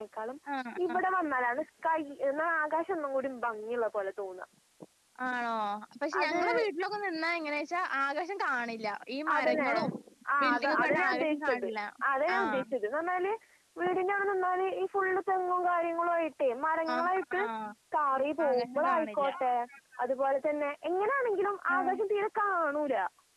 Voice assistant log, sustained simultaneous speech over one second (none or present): present